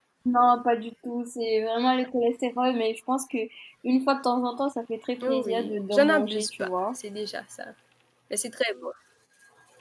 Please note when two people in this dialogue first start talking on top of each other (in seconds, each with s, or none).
5.2 s